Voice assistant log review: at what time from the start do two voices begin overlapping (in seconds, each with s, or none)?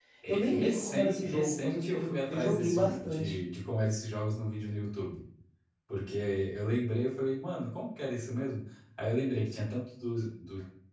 0.5 s